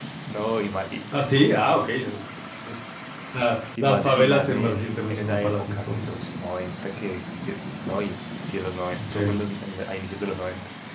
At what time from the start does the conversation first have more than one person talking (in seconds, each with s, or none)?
3.8 s